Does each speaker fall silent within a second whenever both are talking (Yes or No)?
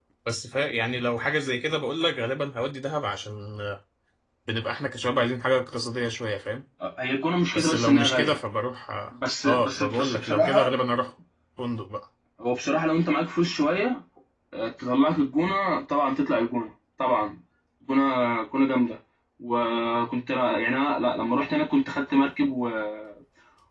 No